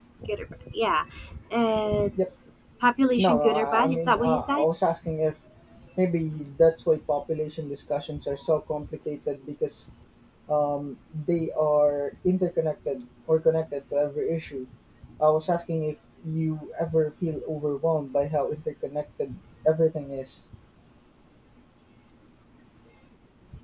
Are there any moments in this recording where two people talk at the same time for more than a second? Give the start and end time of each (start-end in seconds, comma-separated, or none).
3.2-4.7